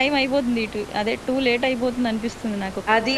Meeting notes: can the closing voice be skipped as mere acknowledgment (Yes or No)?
No